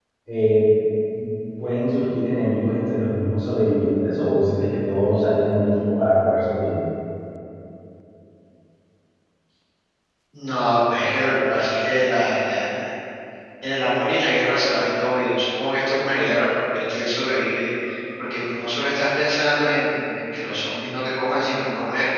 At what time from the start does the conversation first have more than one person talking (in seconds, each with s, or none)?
none